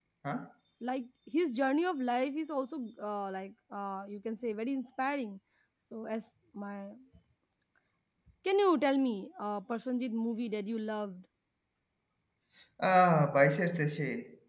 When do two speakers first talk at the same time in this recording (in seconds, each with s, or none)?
none